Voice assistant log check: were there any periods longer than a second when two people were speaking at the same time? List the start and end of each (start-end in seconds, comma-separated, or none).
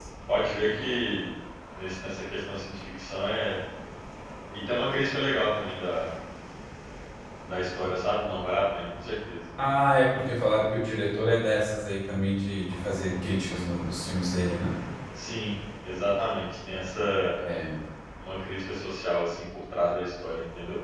none